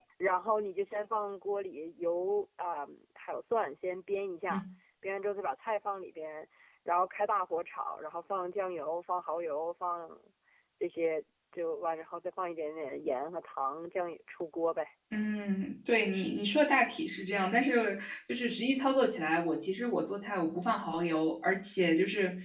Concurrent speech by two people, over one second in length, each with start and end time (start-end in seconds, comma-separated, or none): none